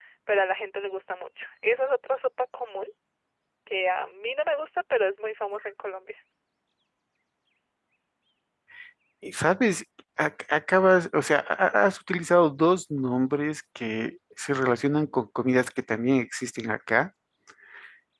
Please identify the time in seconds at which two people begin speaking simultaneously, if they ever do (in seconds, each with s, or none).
none